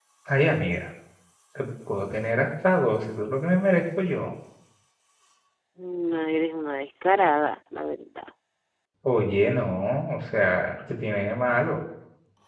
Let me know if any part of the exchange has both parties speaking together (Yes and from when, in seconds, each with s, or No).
No